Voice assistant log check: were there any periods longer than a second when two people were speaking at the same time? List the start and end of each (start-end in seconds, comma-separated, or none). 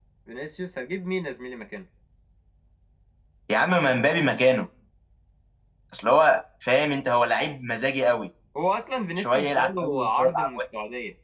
9.2-10.6